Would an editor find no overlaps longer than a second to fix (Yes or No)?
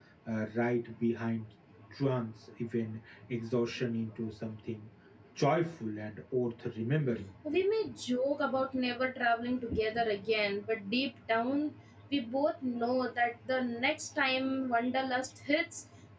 Yes